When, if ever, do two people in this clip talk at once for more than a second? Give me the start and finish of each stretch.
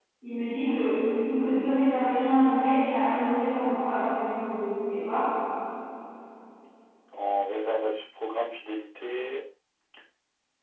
none

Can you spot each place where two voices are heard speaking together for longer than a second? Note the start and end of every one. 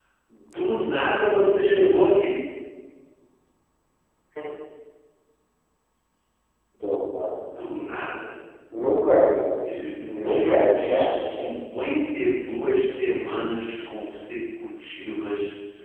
10.1-11.4

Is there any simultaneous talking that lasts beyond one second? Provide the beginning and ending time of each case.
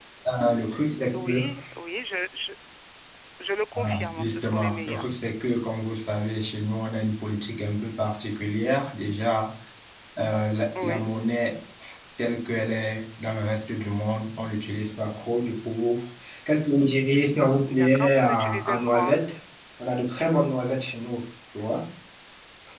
3.8-5.1, 17.7-19.1

